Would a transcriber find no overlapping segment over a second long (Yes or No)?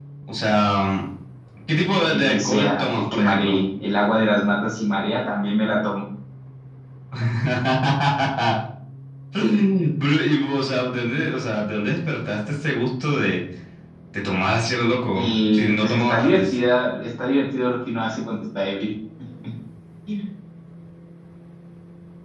No